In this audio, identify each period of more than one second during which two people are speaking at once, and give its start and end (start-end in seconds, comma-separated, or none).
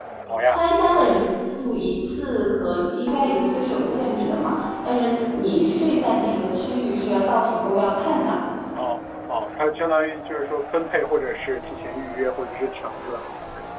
none